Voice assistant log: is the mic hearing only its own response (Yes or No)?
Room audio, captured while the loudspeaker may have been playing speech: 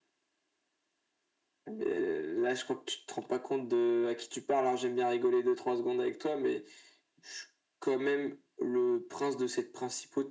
Yes